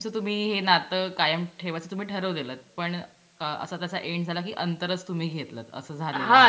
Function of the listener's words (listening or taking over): taking over